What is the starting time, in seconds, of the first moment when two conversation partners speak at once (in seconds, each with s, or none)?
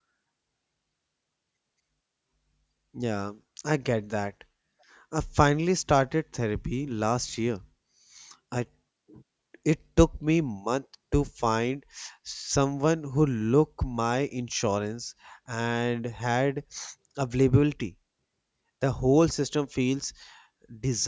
none